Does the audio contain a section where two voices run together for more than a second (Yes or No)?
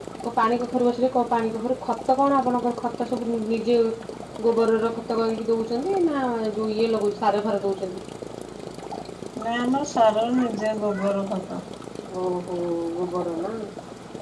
No